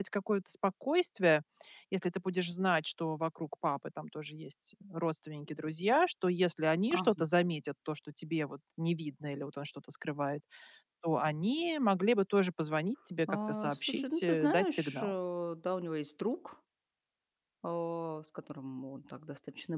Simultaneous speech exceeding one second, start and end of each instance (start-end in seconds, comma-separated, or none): 13.3-15.1